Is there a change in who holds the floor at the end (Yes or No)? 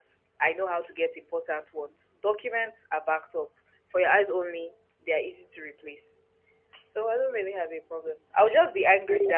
No